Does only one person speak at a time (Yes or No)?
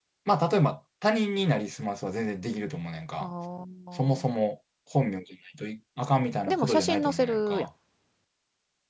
No